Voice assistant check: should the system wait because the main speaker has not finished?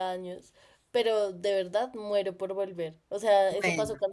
Yes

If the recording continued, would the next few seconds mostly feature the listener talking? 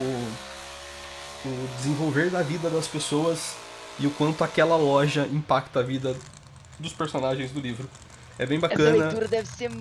Yes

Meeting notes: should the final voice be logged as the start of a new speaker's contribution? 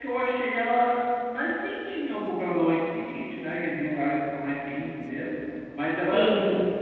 No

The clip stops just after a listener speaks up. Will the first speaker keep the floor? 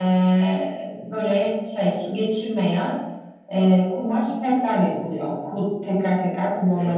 No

